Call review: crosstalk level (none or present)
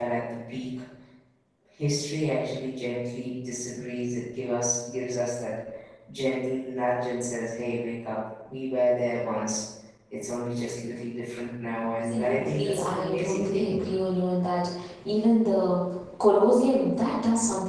present